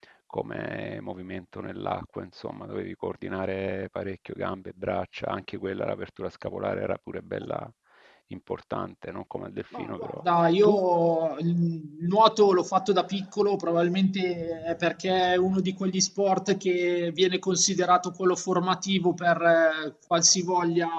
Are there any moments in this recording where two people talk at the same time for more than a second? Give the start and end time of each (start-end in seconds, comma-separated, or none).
none